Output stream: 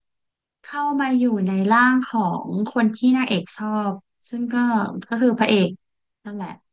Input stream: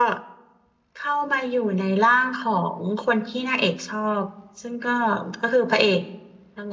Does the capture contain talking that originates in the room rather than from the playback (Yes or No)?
No